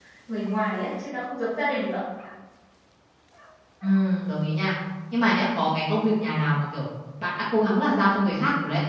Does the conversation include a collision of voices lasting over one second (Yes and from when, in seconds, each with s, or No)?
No